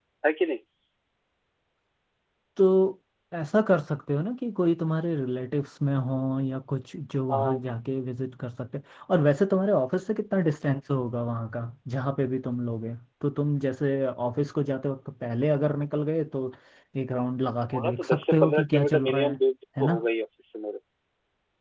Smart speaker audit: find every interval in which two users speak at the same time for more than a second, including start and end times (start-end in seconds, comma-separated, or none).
17.7-19.4